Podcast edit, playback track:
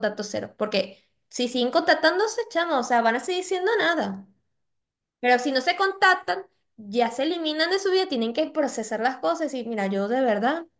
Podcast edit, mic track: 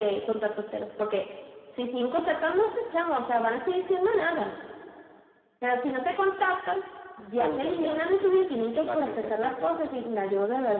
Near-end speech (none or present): present